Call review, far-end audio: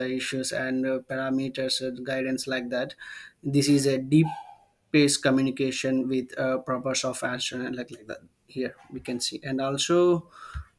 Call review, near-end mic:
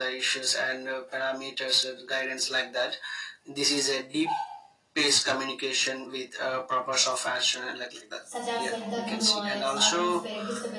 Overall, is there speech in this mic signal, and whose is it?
both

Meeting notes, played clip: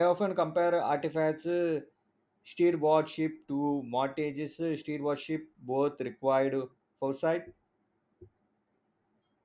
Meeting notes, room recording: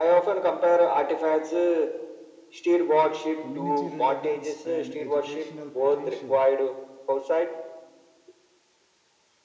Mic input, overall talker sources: both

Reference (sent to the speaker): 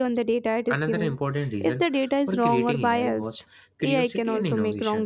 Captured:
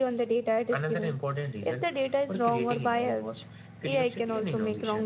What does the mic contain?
echo only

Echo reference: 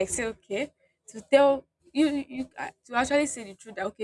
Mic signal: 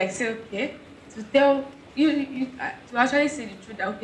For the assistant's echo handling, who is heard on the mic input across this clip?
echo only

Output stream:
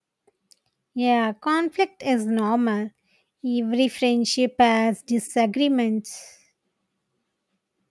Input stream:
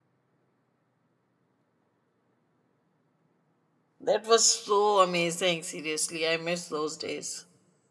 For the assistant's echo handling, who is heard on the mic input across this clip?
user only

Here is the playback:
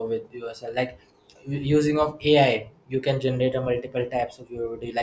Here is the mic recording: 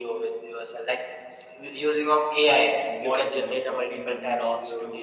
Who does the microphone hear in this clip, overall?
both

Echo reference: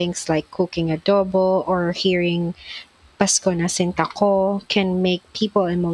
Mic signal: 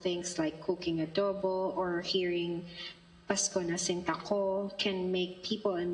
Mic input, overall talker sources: echo only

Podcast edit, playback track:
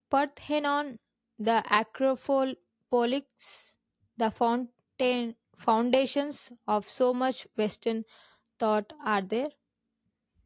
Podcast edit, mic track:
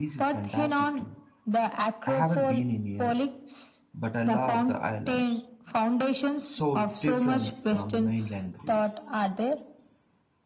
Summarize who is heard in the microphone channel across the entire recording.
both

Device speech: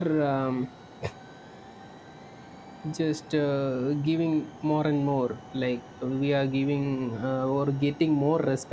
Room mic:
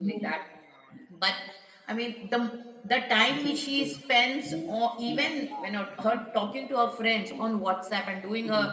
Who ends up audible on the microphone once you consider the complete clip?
both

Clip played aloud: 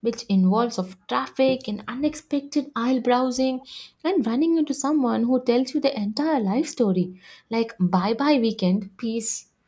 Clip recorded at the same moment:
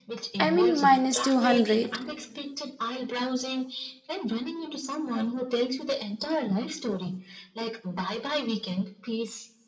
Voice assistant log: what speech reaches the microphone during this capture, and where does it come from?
both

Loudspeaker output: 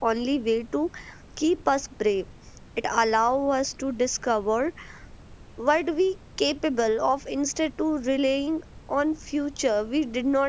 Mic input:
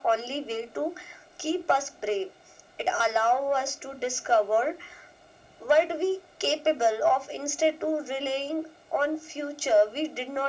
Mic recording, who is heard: echo only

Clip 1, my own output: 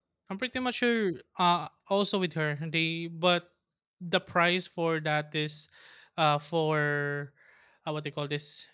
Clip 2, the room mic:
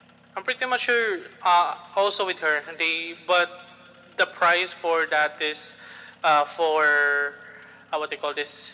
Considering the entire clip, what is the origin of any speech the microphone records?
echo only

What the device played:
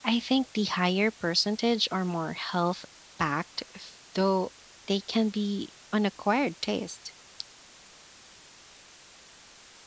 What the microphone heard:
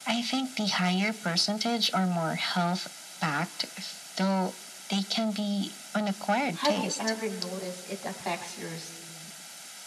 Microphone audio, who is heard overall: both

